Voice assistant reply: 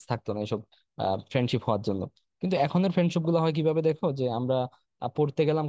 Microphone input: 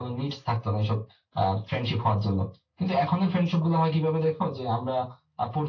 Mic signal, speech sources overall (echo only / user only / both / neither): echo only